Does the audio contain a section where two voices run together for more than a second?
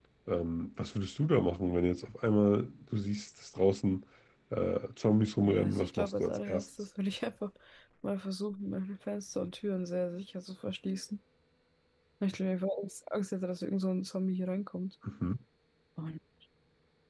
Yes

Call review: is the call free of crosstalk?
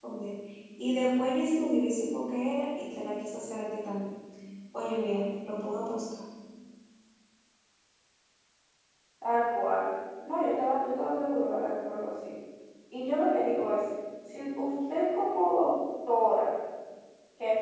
Yes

